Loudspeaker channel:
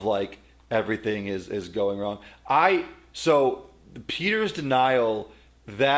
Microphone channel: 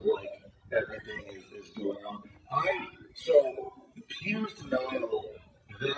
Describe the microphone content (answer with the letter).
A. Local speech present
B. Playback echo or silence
B